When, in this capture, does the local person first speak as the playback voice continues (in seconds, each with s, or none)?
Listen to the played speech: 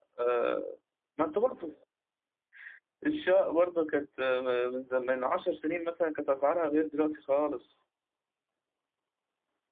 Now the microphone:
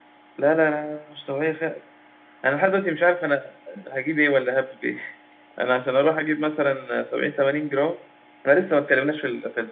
0.4 s